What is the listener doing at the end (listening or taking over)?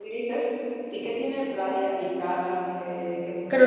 taking over